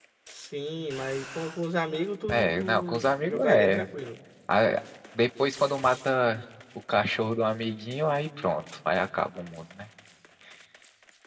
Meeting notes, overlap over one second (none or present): present